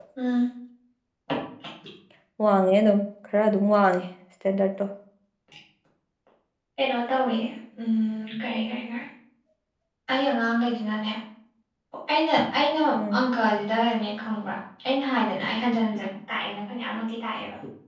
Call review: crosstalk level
none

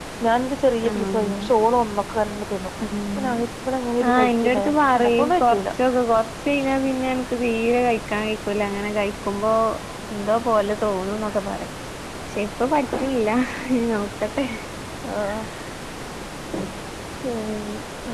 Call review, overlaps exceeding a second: present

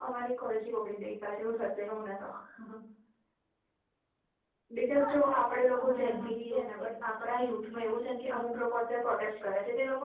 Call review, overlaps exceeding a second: present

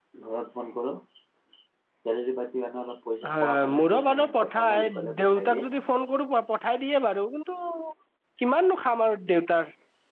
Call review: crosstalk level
present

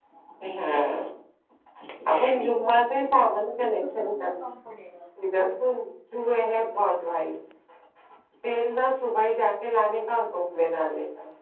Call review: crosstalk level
present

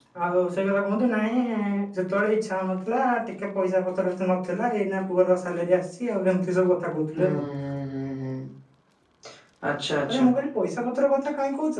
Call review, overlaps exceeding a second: none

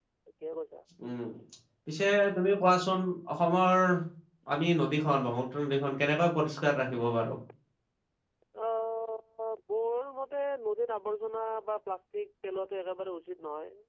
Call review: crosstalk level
none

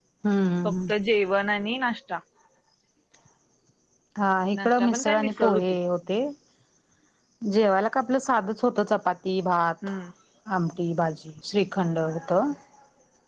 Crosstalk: present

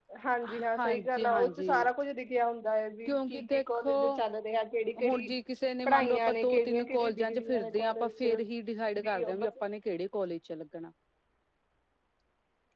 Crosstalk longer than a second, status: present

